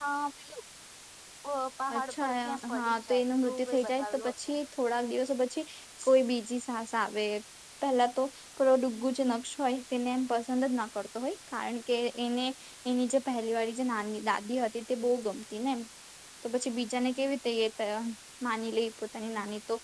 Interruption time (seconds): 2.2 s

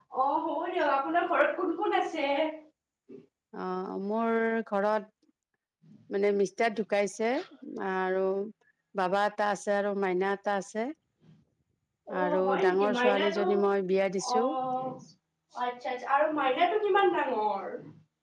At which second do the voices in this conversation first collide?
12.2 s

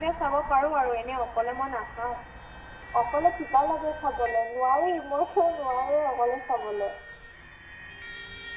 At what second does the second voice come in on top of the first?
none

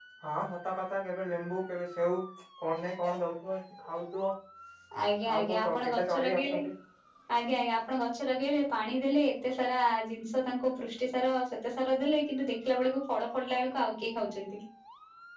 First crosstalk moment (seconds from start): 5.3 s

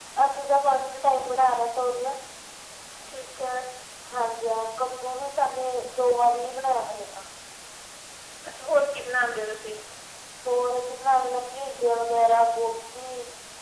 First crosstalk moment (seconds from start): none

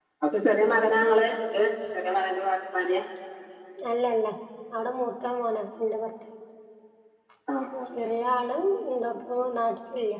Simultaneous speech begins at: none

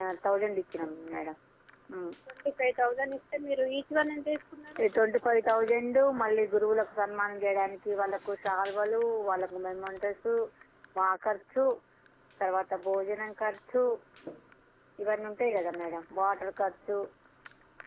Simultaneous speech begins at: none

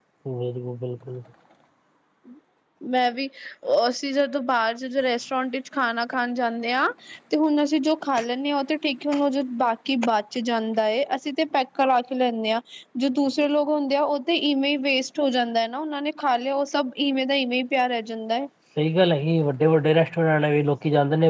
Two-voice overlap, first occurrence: none

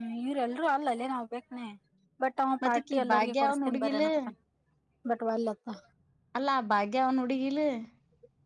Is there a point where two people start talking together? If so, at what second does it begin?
2.6 s

